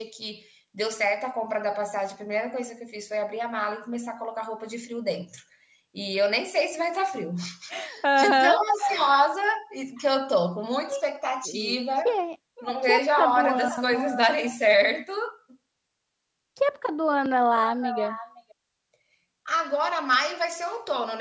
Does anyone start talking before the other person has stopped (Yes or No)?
Yes